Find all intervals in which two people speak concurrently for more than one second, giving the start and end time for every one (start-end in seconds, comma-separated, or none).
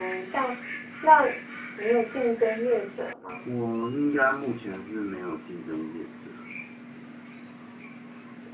none